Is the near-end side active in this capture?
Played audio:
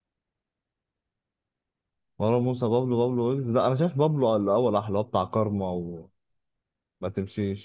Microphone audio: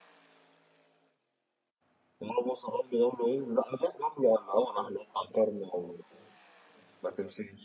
No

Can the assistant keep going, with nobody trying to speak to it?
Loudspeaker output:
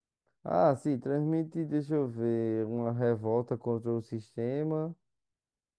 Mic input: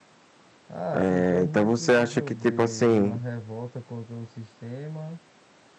No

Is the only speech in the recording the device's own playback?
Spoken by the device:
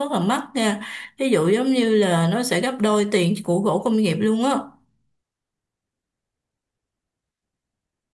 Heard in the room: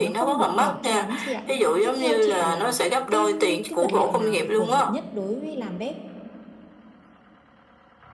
No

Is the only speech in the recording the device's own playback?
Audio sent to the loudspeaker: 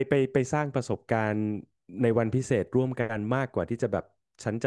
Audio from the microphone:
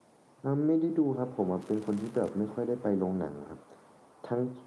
No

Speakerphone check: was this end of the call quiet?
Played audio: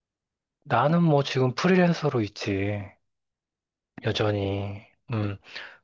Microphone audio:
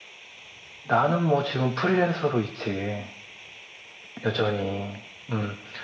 Yes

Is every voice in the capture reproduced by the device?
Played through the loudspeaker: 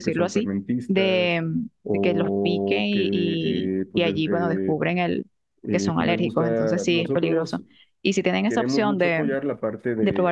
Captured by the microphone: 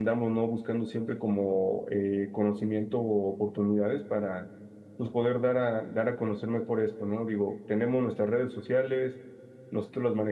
No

